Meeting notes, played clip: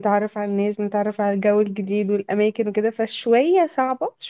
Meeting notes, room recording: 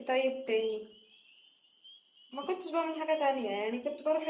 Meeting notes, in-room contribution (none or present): present